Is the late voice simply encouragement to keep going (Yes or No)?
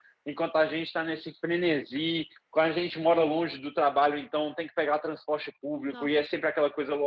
Yes